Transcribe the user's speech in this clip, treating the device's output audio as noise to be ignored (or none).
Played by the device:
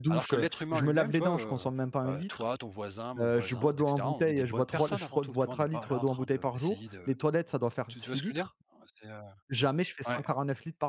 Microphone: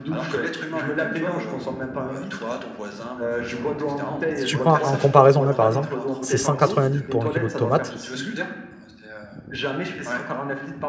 Si tu prends en comparaison, hein, par exemple, c'est 180 litres pour un kilo de tomates